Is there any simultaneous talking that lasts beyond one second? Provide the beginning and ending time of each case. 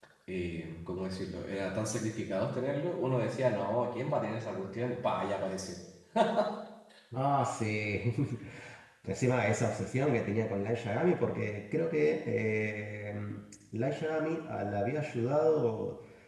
none

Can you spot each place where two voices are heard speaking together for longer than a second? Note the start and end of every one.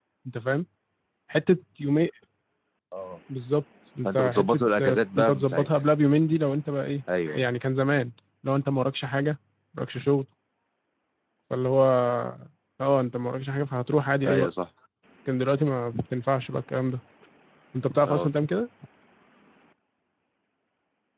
4.0-5.7

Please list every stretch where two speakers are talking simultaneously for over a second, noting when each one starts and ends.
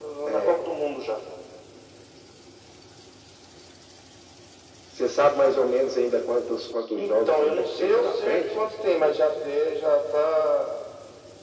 6.9-8.6

